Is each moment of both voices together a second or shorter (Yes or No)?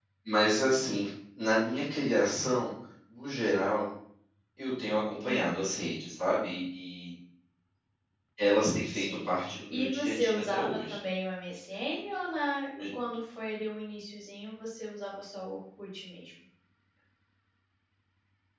No